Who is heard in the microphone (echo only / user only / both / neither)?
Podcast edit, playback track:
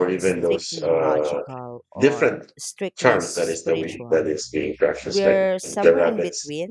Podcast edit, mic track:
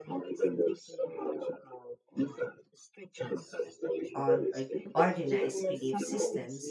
both